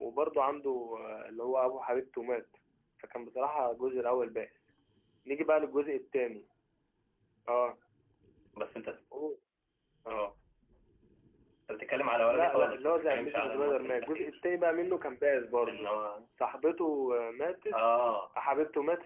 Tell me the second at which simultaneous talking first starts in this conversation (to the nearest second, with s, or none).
12 s